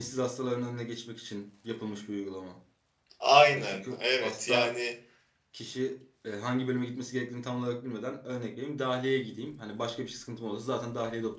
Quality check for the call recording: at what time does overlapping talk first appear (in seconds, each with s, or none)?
3.5 s